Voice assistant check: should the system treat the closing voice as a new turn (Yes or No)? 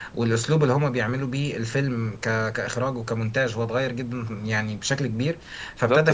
No